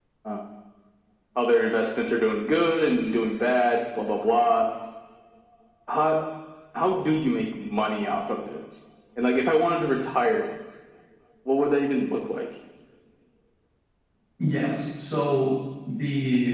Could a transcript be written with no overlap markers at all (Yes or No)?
Yes